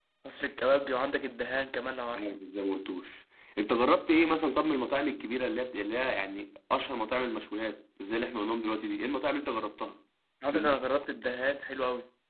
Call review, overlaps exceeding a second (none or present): none